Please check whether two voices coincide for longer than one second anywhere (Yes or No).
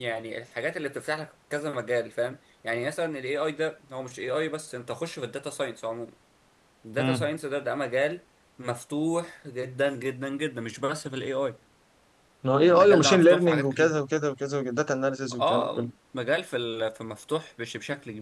Yes